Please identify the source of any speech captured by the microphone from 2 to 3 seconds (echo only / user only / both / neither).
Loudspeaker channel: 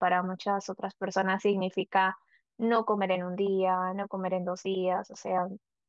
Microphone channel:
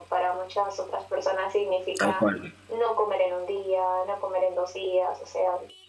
both